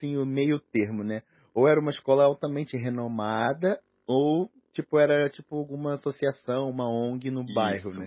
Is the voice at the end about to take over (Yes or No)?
Yes